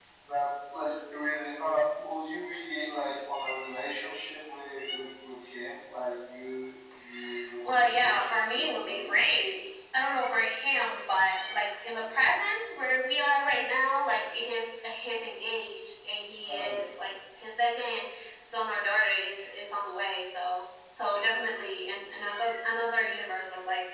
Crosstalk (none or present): present